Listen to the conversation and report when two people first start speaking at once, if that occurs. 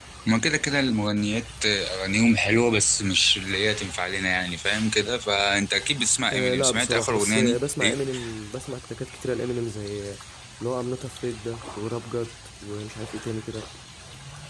6.3 s

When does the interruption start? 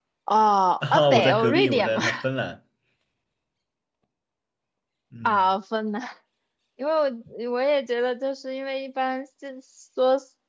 0.8 s

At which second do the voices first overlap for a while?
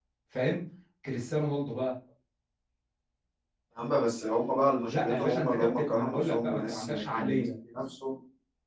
4.9 s

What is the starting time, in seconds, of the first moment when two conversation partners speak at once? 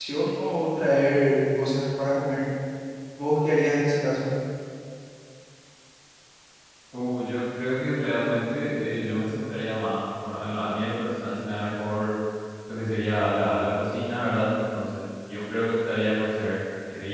none

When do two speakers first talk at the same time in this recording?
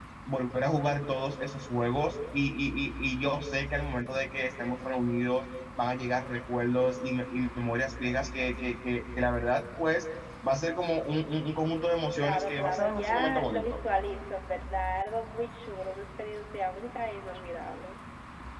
12.2 s

